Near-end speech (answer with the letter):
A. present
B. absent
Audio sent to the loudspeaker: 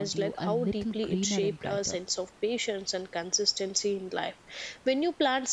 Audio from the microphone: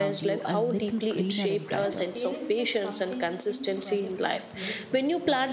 A